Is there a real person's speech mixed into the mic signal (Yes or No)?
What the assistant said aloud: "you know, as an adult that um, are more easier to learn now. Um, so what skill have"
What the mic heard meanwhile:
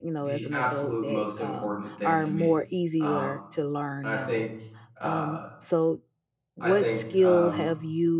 Yes